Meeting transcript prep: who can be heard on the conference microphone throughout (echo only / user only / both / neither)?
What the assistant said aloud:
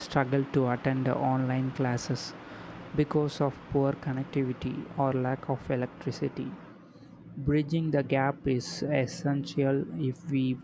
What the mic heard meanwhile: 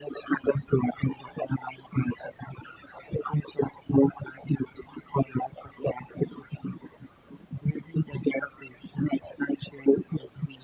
echo only